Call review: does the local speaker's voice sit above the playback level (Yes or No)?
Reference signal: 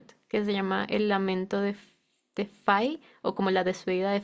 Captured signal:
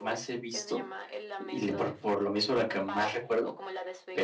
Yes